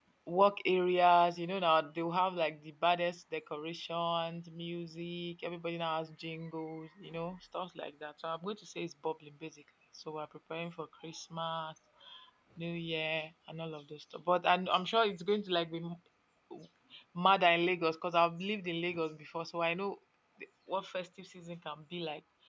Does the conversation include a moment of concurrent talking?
No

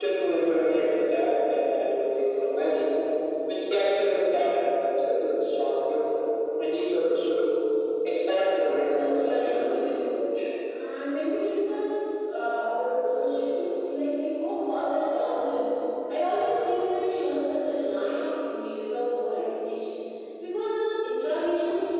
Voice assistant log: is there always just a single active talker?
No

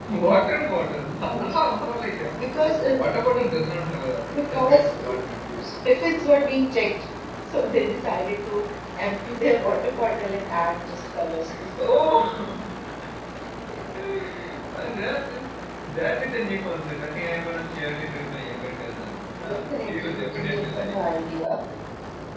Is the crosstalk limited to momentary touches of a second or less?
No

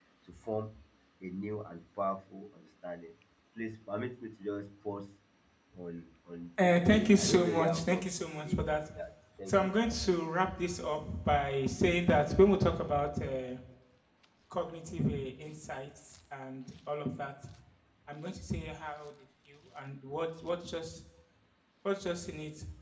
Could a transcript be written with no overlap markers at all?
No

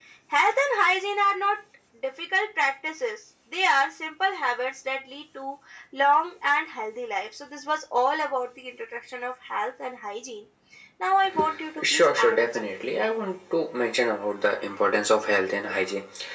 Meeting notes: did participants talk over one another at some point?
Yes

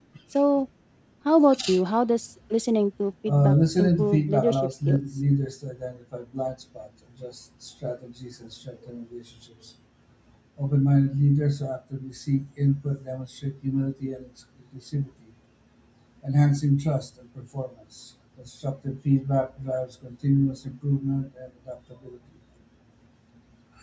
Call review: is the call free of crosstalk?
No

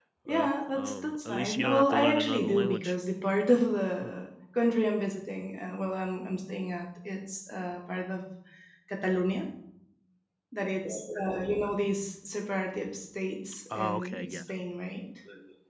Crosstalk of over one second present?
Yes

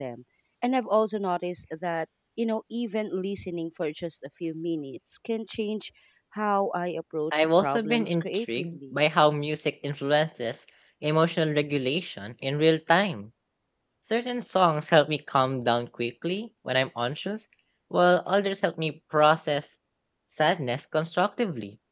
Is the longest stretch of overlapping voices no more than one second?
No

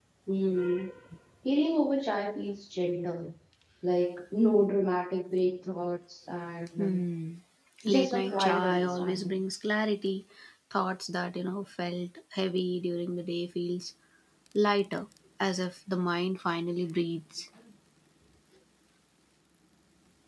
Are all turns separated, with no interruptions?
No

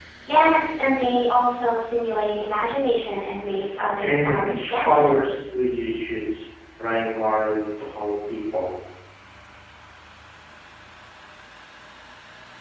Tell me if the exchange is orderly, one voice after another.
No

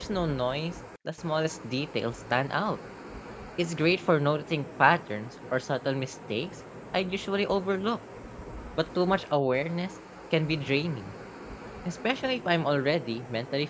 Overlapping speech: No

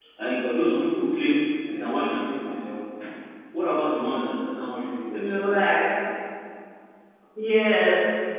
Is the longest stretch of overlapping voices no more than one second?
Yes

